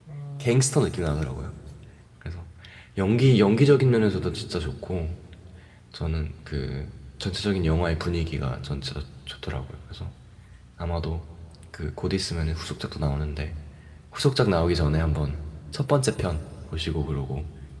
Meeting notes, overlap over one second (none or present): none